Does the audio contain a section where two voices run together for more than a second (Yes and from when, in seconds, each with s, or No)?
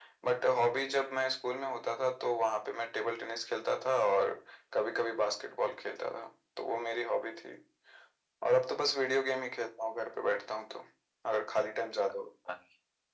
No